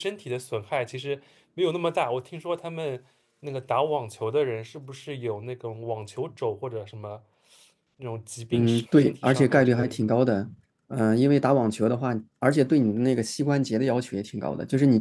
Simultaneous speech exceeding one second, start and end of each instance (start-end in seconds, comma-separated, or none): 8.5-10.0